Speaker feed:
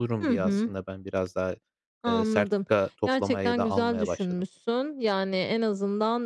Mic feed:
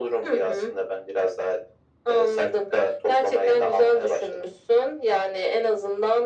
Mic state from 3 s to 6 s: echo only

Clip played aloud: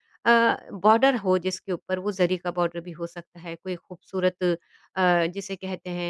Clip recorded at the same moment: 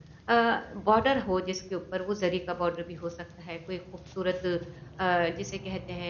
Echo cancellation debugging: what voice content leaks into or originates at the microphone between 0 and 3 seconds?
echo only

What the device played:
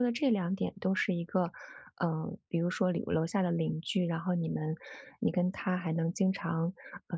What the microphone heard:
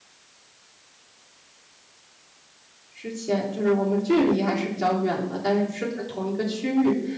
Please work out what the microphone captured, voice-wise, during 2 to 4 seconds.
user only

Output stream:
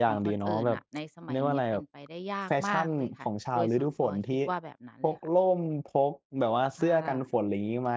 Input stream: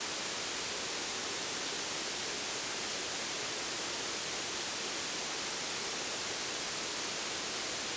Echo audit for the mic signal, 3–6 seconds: neither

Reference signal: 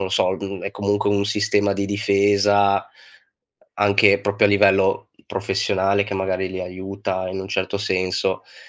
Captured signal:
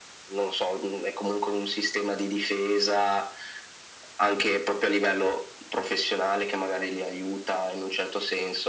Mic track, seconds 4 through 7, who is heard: echo only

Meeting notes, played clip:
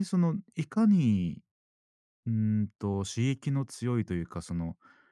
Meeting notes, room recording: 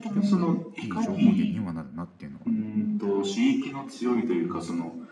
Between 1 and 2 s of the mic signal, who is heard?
both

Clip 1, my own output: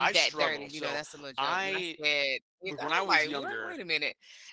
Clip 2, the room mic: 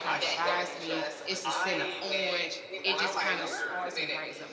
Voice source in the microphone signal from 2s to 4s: both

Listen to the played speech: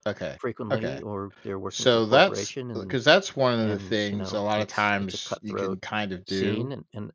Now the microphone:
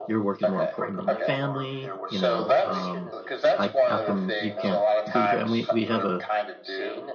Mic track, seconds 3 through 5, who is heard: both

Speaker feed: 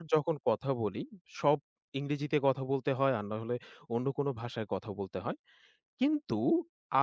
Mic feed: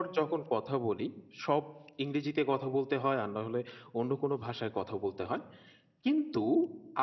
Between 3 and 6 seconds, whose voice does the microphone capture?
echo only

